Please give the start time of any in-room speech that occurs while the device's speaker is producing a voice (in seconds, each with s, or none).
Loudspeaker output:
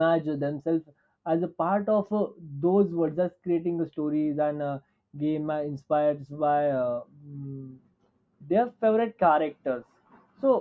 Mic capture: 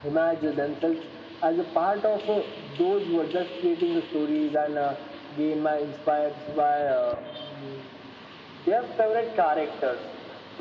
none